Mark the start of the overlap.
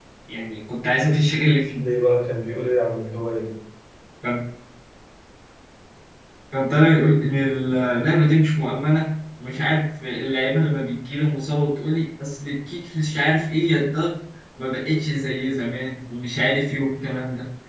none

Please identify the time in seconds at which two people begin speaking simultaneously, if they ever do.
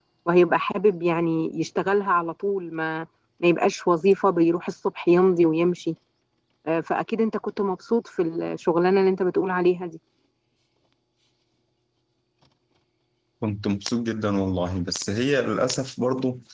none

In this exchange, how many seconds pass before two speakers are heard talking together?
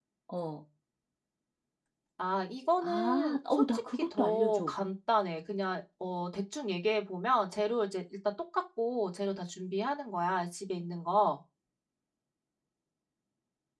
2.8 s

